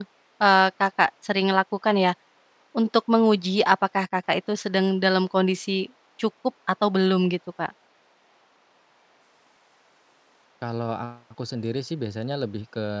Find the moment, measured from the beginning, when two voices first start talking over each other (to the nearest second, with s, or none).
none